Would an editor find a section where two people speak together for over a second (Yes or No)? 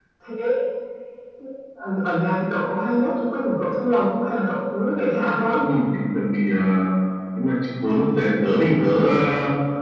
No